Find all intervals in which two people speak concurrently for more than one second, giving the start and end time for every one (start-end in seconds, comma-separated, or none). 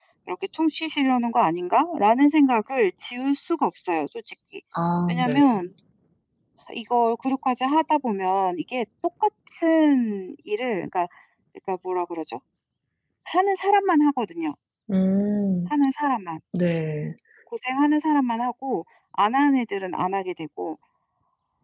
none